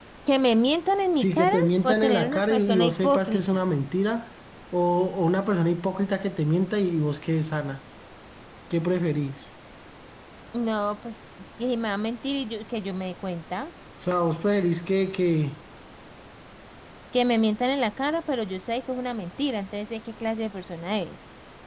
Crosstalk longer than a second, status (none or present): present